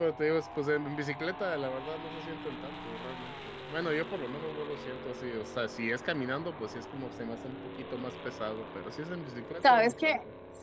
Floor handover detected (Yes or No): Yes